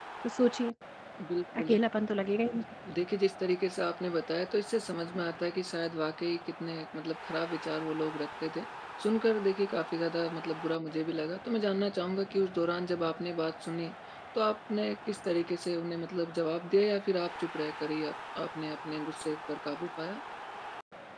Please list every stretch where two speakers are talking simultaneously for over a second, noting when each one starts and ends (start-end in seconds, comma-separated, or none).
none